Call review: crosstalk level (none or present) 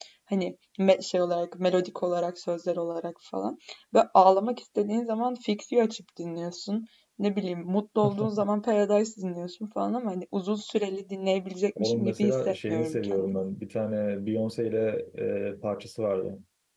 present